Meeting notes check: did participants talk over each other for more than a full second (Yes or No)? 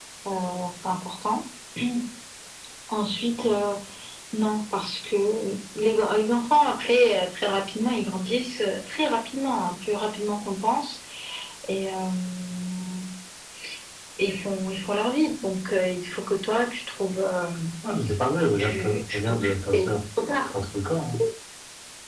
Yes